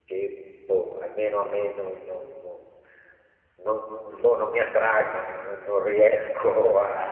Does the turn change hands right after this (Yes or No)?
Yes